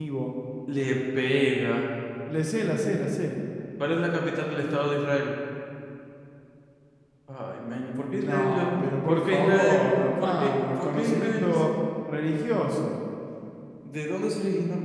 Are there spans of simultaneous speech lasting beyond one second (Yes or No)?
Yes